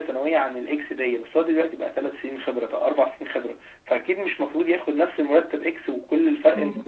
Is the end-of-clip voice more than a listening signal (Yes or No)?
Yes